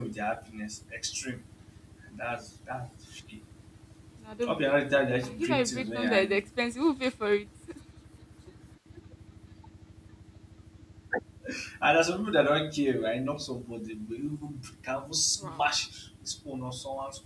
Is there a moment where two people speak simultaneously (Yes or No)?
Yes